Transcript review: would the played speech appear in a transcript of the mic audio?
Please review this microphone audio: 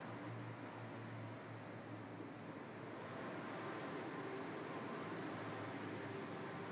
No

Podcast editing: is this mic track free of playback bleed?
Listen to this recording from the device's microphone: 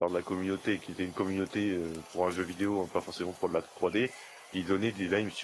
Yes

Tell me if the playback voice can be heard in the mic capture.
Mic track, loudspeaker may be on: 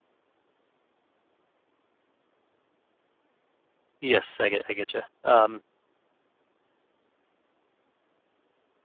No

